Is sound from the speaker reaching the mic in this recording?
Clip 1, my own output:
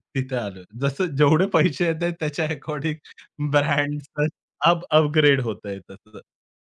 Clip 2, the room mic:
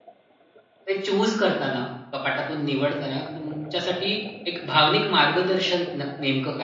No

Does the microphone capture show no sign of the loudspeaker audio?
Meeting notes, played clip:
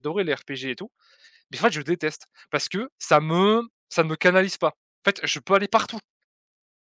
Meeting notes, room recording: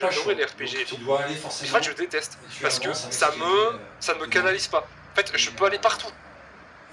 No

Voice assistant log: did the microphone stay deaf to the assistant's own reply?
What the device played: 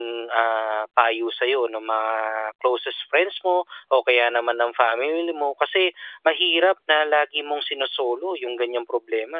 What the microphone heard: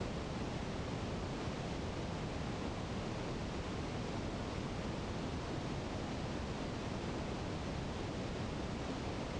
Yes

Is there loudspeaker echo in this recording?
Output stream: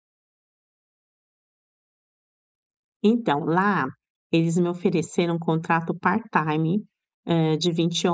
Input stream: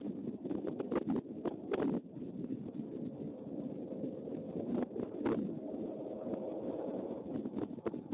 No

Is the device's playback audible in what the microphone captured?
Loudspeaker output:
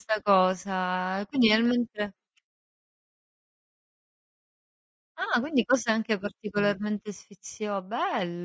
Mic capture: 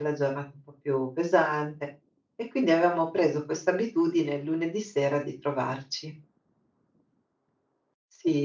No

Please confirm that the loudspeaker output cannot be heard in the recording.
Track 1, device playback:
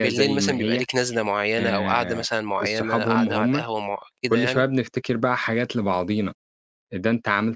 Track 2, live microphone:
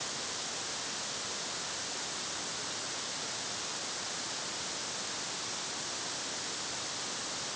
Yes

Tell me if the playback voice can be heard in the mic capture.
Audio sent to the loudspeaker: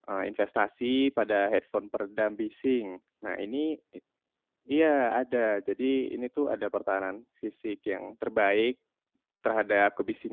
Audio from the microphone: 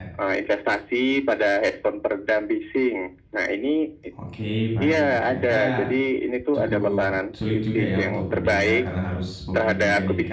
Yes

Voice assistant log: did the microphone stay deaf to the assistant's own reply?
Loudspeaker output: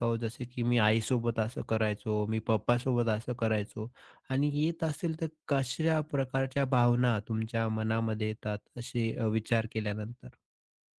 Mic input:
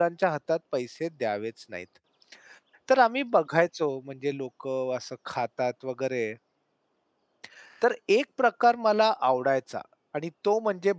Yes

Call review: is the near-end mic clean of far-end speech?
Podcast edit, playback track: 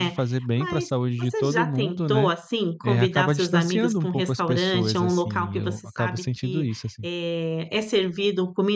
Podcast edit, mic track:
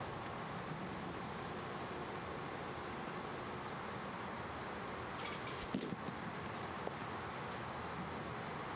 Yes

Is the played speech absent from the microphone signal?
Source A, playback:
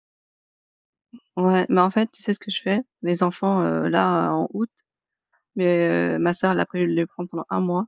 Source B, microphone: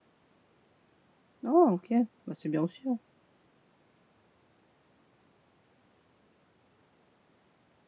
Yes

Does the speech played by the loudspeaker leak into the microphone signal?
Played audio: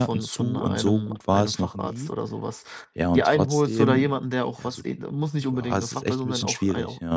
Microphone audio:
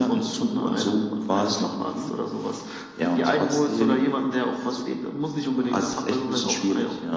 Yes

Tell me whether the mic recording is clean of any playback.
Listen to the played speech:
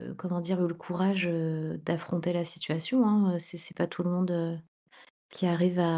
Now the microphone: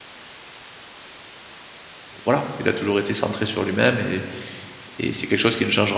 Yes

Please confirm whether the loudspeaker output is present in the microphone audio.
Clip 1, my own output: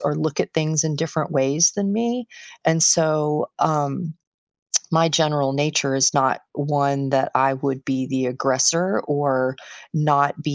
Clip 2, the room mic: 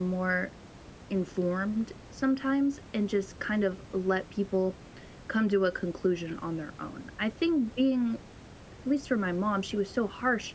No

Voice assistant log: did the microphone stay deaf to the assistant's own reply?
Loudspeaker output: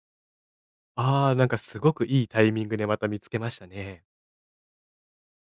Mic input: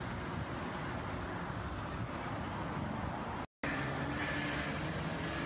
Yes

